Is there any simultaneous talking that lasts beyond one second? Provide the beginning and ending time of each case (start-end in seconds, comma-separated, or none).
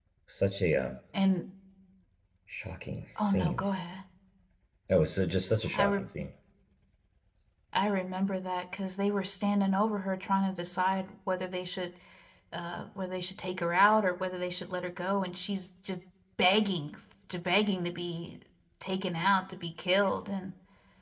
none